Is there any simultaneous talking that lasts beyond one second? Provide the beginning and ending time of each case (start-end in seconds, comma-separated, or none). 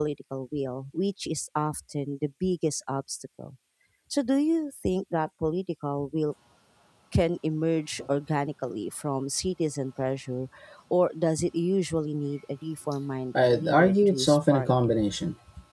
13.3-14.9